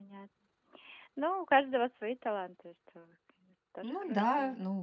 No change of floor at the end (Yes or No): No